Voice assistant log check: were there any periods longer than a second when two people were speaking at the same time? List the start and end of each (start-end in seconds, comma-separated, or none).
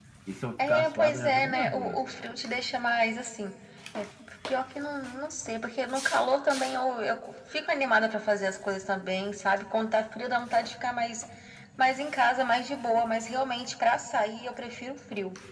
0.6-2.0